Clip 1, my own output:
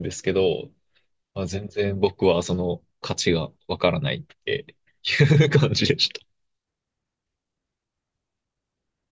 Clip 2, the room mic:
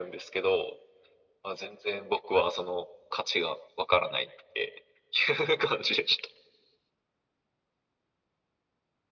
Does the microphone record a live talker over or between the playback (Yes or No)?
No